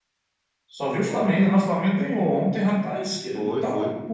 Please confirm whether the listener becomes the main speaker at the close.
No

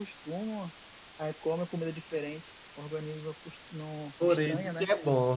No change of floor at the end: No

